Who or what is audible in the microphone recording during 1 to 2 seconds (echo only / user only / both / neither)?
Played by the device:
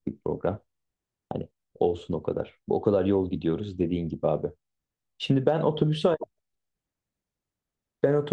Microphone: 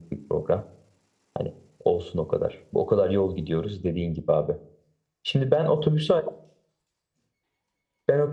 echo only